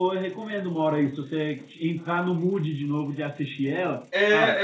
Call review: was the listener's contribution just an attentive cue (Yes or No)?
No